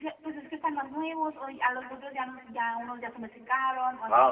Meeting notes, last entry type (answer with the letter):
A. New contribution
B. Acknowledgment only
A